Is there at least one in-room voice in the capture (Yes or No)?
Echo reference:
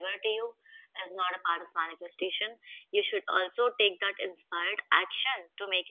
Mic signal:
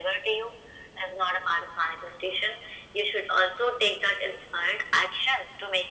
No